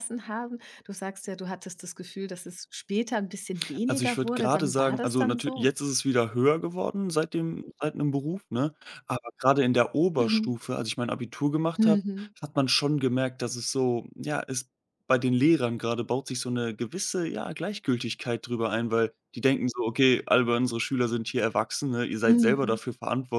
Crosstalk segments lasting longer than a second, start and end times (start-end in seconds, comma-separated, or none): 3.9-5.7